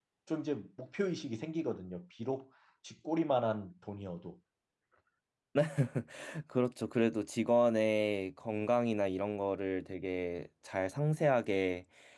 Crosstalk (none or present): none